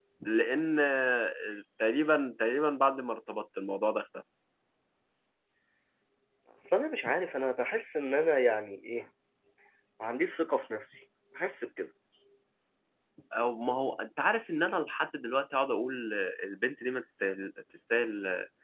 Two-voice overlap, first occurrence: none

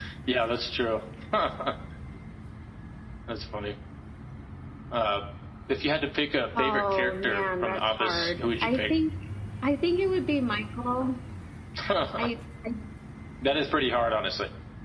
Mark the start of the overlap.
7 s

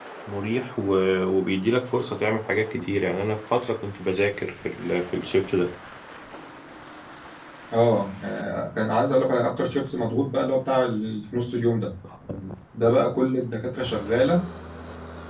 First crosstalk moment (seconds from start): none

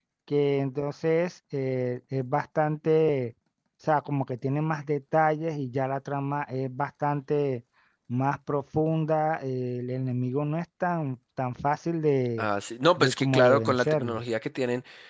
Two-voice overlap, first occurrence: 13 s

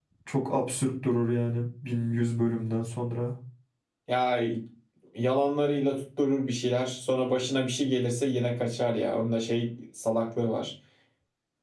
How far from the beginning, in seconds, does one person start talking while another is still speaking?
none

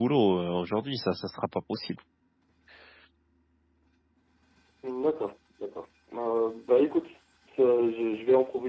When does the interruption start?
none

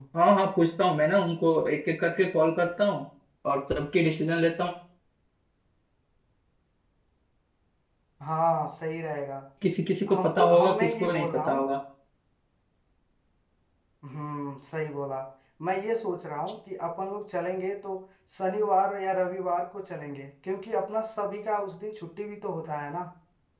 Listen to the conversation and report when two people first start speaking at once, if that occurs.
10 s

